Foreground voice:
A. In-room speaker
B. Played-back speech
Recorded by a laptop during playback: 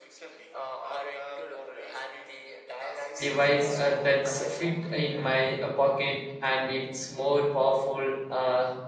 A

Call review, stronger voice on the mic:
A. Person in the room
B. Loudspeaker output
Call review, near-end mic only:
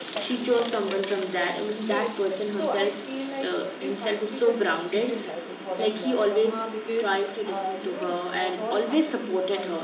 B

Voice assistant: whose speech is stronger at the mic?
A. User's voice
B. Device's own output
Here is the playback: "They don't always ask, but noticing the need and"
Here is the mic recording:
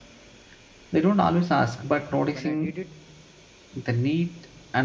B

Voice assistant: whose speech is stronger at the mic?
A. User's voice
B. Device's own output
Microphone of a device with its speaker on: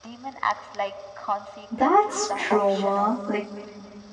A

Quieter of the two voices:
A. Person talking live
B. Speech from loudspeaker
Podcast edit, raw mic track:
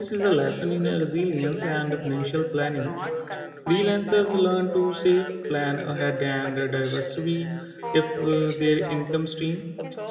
B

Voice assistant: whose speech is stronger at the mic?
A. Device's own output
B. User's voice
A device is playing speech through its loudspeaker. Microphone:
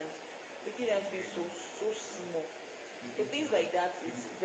A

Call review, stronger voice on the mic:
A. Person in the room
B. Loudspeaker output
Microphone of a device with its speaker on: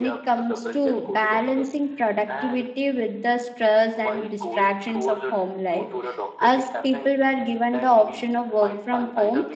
A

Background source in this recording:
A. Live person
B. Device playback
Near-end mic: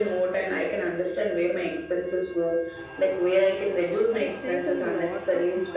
A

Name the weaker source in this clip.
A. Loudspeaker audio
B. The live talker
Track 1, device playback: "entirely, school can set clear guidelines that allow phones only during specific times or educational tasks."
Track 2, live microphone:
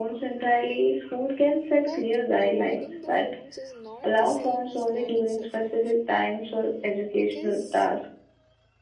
B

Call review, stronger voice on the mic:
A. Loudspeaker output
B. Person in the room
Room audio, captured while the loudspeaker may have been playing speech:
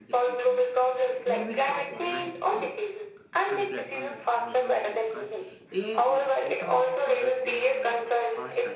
A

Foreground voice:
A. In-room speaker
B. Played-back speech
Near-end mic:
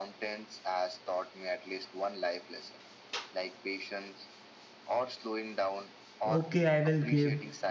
A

